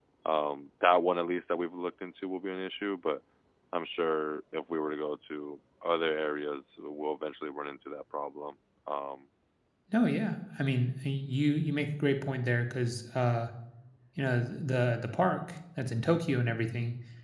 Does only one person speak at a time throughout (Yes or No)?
Yes